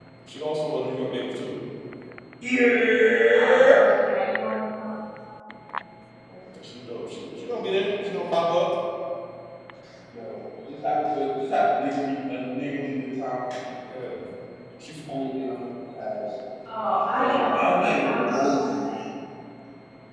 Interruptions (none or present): present